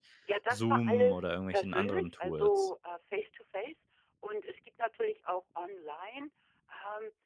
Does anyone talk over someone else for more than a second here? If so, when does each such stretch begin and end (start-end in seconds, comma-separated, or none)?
0.5-2.7